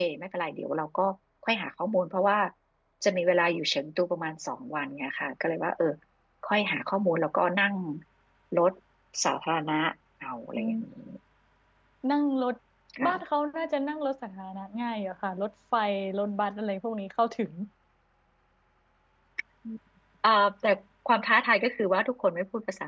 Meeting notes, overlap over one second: none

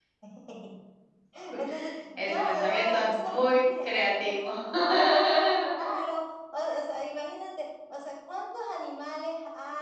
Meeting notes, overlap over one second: present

